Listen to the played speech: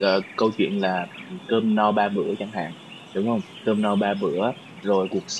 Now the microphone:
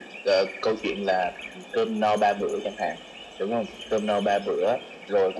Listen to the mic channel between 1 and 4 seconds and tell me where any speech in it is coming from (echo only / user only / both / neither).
echo only